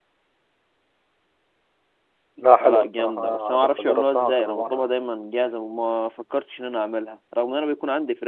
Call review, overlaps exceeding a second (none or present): present